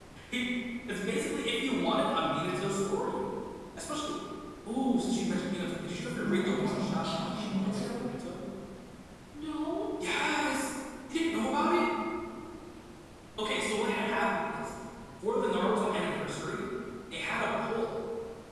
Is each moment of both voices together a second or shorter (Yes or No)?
No